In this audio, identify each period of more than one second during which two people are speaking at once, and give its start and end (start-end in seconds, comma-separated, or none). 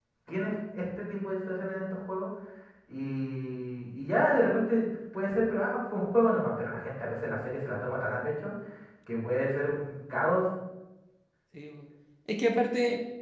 none